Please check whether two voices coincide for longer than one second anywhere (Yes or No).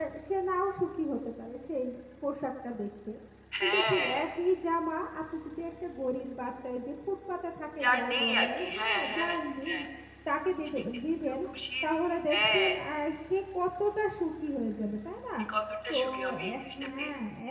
Yes